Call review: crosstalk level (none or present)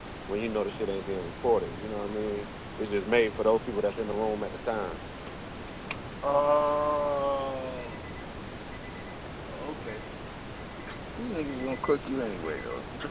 none